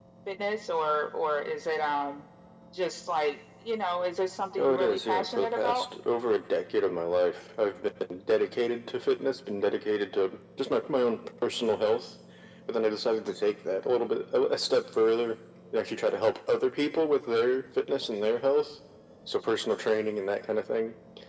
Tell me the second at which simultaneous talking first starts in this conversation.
4.6 s

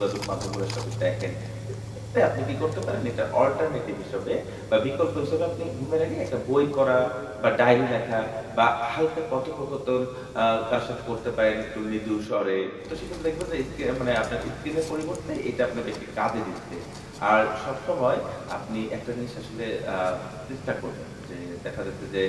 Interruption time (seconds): none

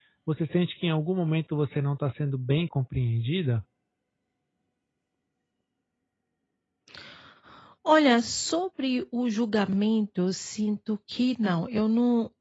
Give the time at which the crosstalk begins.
none

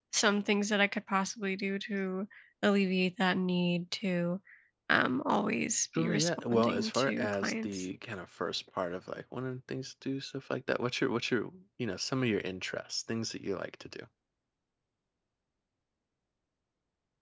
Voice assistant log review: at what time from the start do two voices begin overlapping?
5.9 s

